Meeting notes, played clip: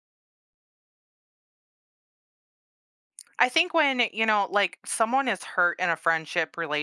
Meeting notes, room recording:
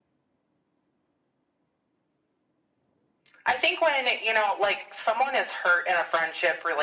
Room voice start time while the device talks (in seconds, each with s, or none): none